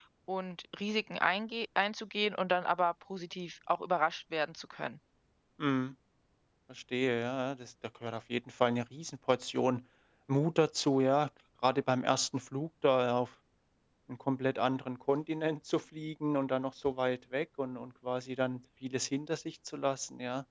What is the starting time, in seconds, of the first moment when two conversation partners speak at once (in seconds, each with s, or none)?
none